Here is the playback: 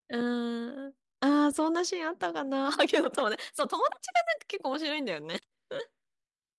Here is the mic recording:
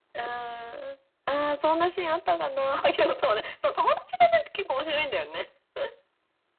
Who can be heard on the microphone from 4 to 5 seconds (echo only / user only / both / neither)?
echo only